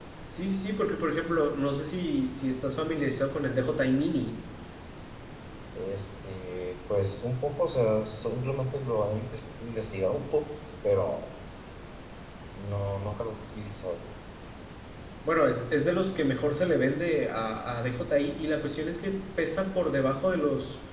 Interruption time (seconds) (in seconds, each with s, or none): none